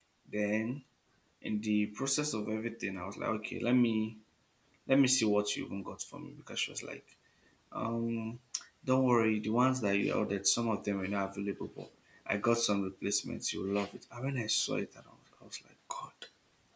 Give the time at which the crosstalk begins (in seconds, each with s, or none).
none